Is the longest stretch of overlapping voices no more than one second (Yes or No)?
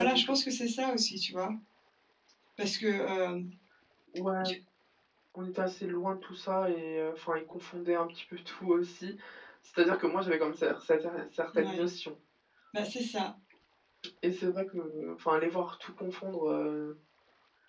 Yes